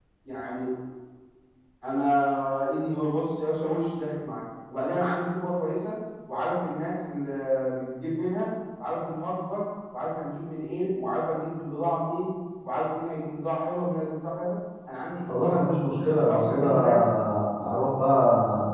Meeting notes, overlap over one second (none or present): present